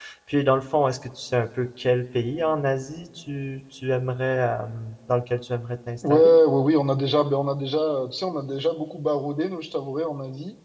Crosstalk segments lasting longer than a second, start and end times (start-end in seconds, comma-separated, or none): none